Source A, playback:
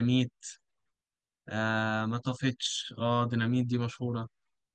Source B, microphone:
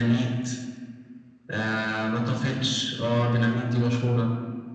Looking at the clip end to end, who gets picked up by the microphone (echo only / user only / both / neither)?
echo only